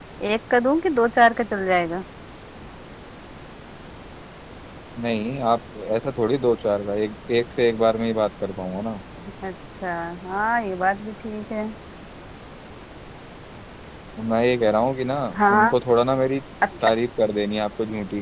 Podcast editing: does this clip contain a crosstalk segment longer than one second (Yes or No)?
No